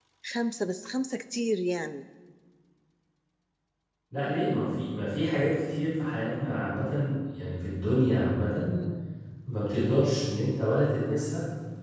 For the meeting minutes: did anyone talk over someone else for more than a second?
No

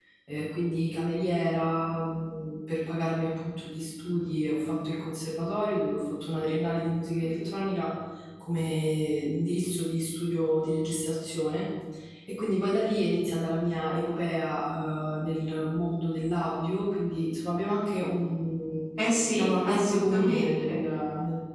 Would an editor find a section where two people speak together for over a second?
Yes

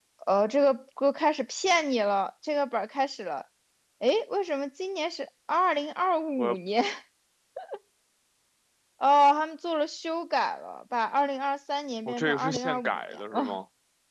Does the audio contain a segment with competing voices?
Yes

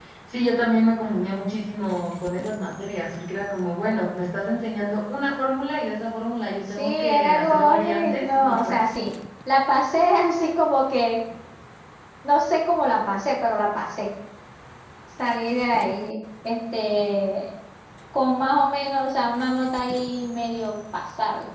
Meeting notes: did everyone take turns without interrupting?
No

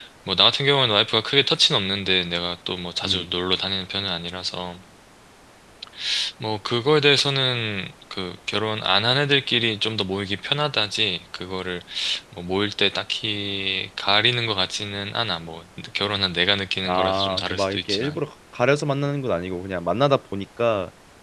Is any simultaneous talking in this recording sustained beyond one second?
Yes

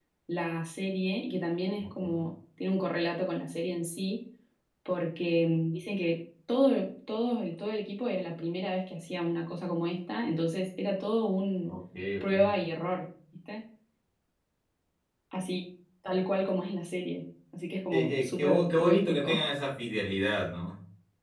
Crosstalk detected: Yes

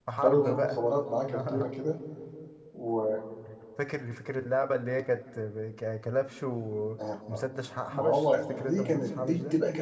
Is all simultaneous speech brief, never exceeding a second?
No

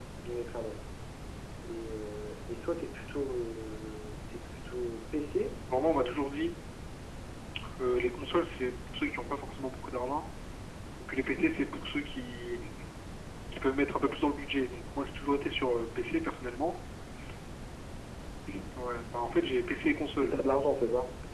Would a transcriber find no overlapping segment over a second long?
Yes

